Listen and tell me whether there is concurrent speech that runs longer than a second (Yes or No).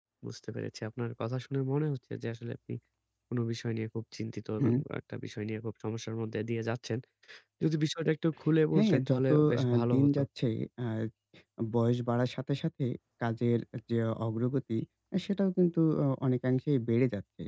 Yes